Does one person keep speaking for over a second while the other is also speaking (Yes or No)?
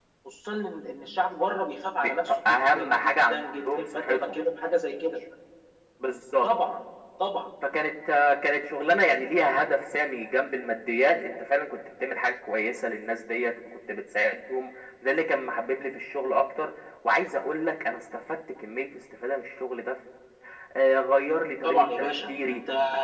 Yes